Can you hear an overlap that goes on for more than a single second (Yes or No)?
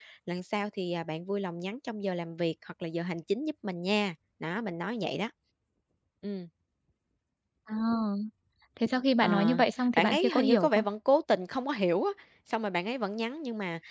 Yes